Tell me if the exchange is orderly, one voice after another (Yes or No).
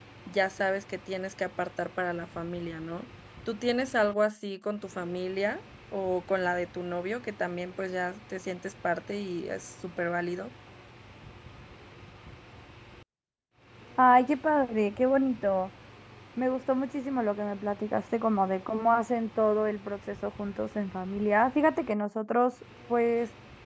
Yes